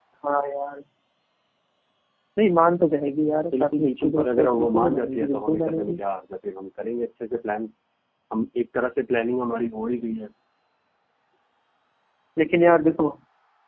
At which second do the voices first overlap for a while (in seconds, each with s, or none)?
3.5 s